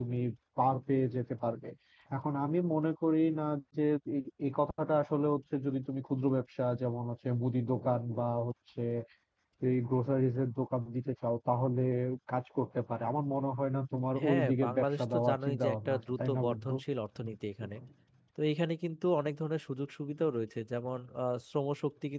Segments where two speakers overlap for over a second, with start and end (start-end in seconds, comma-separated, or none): 14.2-16.7